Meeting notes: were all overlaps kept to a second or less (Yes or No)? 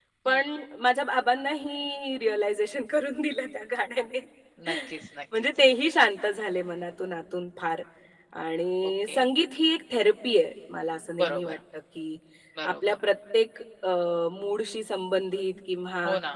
Yes